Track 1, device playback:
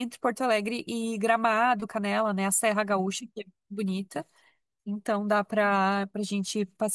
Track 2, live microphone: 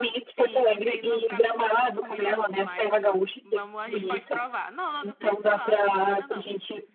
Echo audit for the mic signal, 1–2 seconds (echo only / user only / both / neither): both